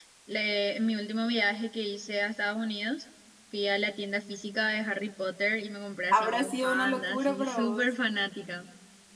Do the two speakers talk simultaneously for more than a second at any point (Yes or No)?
Yes